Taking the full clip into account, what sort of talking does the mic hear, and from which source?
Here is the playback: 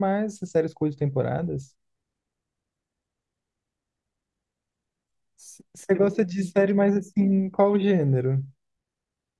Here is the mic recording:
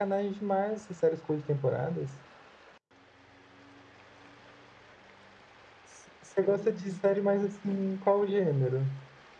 echo only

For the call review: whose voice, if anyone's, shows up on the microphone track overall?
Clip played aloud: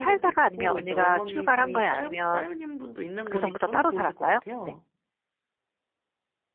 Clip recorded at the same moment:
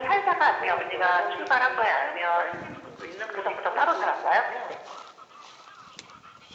echo only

